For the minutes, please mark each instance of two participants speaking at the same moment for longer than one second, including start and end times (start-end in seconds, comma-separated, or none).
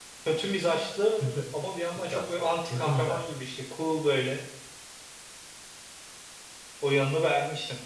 2.0-3.2